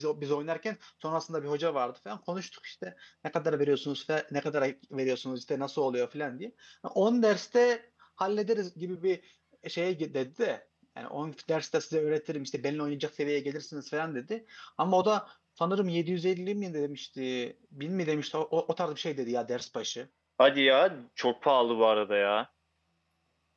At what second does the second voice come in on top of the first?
none

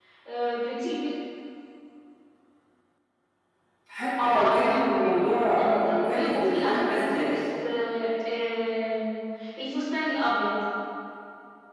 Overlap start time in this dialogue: 4.2 s

